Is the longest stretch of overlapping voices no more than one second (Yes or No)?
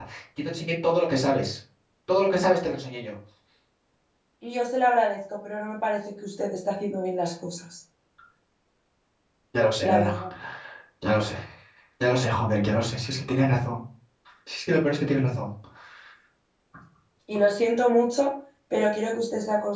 Yes